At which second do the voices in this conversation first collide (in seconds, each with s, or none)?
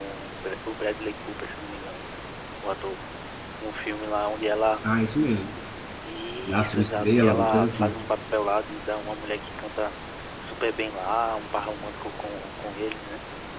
6.5 s